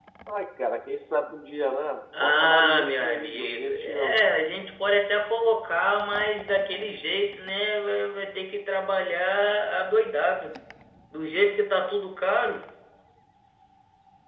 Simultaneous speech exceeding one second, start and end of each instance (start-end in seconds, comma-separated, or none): 2.2-4.2